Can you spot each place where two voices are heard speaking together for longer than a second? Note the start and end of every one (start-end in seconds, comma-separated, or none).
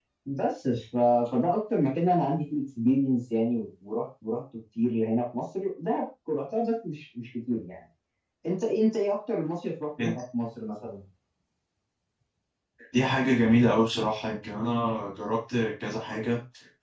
none